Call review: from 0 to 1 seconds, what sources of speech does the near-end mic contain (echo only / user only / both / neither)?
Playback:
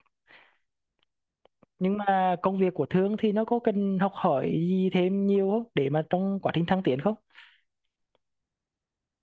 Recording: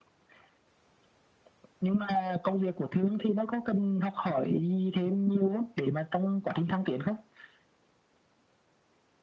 neither